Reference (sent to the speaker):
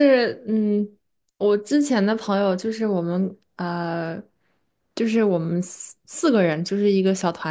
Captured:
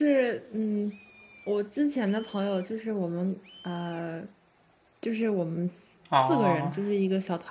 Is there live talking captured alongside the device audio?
Yes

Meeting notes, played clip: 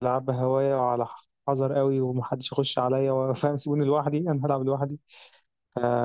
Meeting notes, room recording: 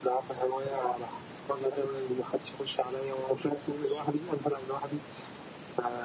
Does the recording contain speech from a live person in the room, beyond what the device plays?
No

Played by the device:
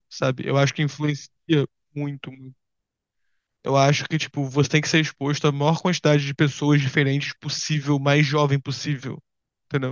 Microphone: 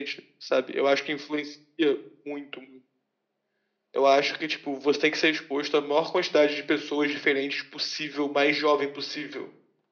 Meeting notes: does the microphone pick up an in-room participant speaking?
No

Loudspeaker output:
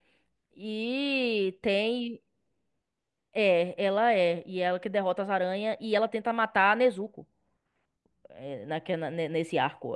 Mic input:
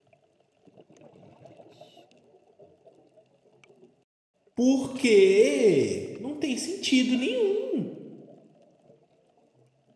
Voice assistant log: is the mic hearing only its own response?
No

